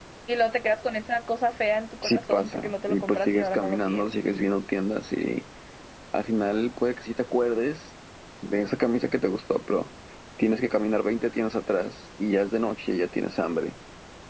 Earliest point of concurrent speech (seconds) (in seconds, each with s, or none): 2.0 s